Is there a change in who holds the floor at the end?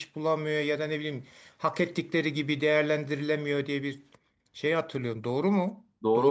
Yes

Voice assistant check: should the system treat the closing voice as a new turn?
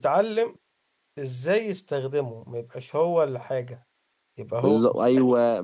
Yes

